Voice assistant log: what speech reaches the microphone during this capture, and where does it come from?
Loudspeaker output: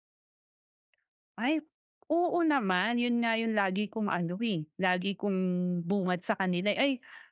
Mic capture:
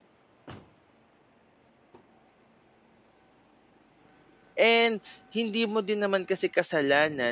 user only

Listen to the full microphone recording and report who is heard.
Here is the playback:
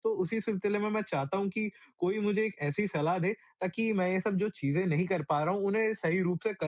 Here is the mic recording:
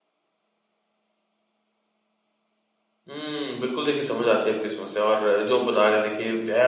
user only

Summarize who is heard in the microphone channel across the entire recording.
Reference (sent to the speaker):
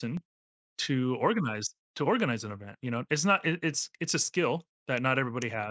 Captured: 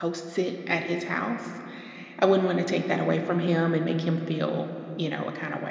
user only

